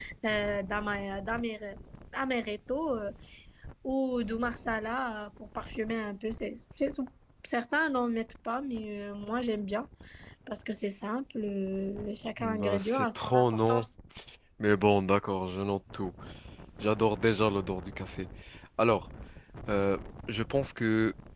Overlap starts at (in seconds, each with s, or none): 12.4 s